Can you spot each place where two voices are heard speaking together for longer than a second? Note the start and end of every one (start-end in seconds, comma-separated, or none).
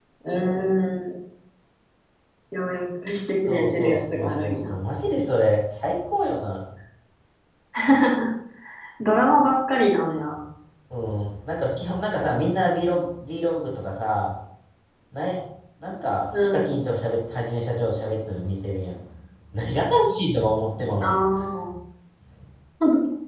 3.5-4.7